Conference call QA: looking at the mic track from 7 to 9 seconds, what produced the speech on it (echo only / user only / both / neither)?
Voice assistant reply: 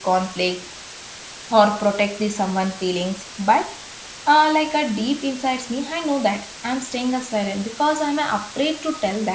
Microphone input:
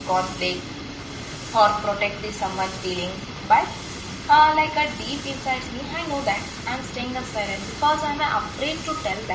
echo only